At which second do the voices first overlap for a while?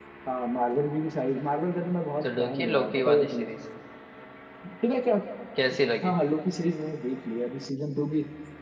2.2 s

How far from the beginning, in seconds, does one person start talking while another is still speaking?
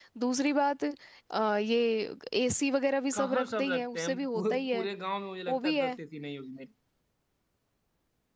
3.1 s

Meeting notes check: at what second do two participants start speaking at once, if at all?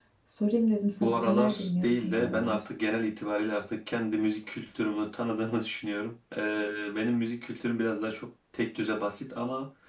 1.0 s

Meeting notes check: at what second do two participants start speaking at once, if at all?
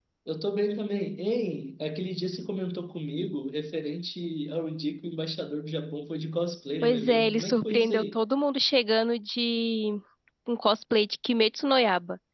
6.8 s

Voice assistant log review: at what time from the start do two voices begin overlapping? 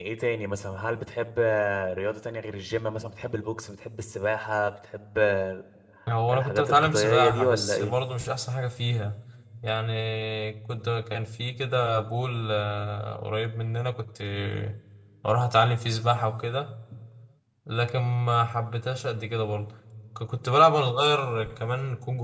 6.3 s

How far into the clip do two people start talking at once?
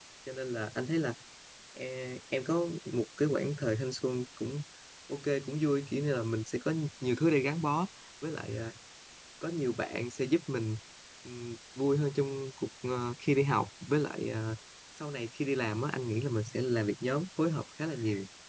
none

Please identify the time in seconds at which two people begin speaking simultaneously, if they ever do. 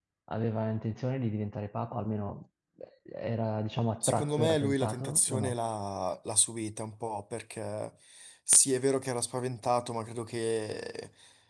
4.0 s

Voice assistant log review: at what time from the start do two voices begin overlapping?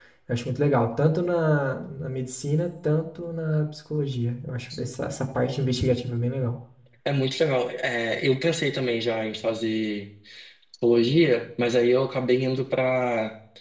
none

